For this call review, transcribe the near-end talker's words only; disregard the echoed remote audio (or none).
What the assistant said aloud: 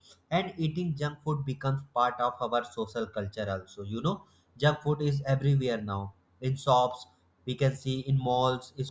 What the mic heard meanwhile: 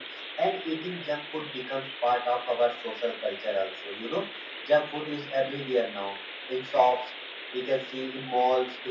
none